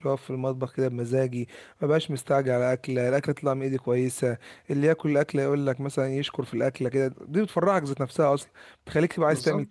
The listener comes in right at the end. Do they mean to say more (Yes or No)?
No